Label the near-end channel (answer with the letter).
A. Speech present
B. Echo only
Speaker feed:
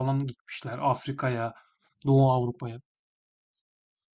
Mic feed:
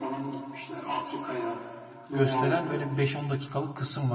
A